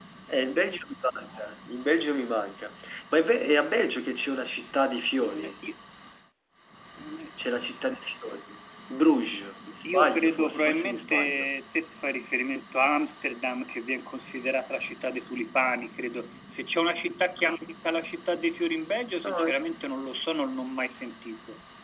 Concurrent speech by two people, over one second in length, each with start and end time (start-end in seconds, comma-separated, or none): 9.8-11.5